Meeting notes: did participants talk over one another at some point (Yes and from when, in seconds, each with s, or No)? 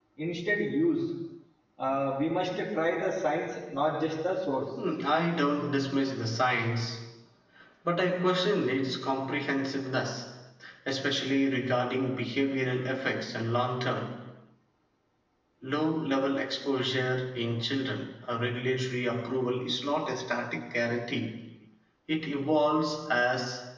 No